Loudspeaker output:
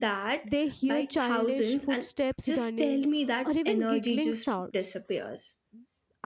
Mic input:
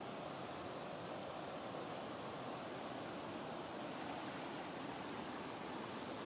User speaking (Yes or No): No